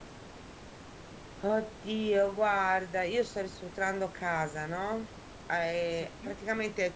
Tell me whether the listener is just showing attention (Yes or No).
Yes